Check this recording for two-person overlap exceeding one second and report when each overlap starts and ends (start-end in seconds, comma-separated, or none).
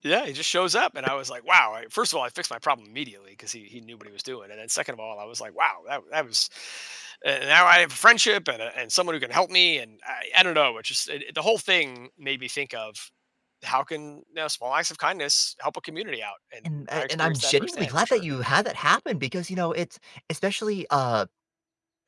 16.9-18.2